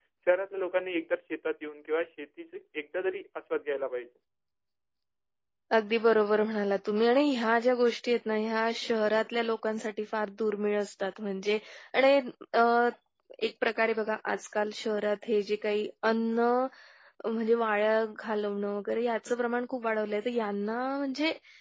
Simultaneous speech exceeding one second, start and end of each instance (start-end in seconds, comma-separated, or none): none